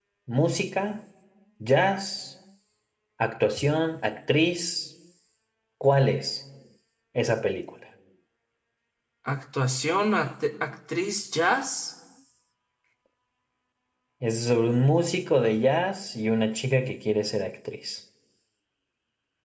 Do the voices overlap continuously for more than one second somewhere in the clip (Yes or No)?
No